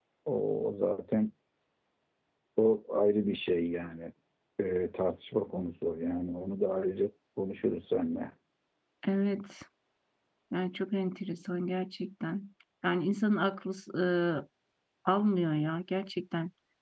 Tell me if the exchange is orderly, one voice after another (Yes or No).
Yes